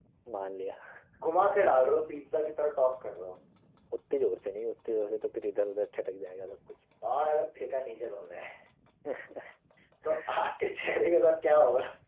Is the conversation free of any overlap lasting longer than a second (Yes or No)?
Yes